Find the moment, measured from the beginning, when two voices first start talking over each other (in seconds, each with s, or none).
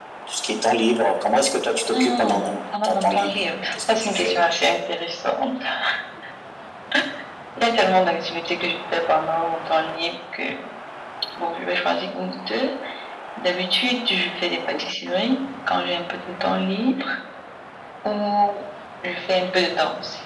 1.9 s